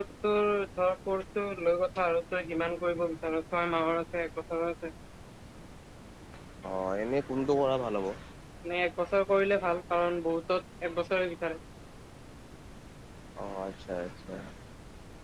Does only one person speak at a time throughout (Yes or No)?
Yes